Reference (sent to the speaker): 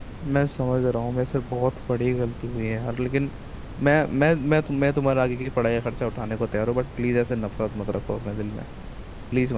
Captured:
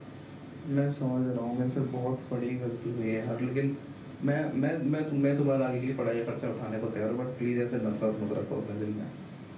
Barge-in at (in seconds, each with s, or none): none